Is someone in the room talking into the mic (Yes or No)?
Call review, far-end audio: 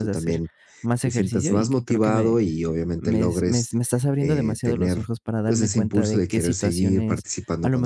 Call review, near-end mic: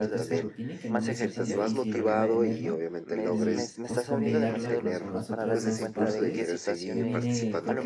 Yes